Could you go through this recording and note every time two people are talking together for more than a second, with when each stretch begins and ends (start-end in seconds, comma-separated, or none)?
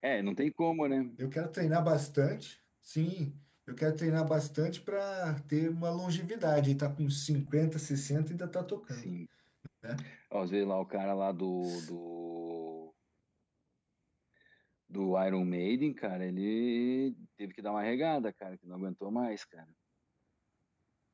none